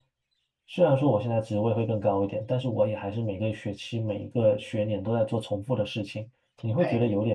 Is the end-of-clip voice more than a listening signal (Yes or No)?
No